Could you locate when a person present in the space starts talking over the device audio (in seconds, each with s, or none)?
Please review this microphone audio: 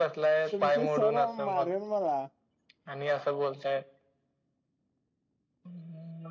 0.5 s